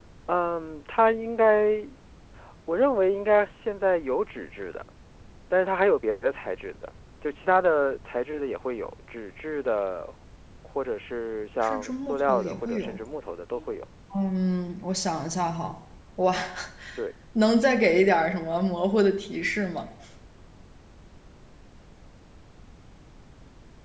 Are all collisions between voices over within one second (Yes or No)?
No